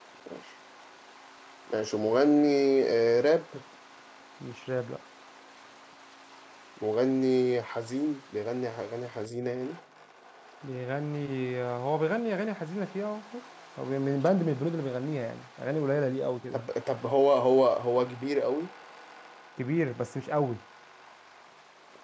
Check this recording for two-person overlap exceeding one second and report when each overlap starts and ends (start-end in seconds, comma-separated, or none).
none